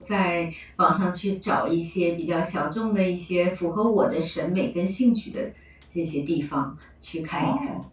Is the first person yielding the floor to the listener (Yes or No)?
Yes